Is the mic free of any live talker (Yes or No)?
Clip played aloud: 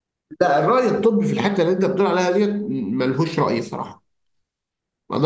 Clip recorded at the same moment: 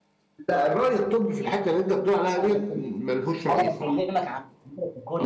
No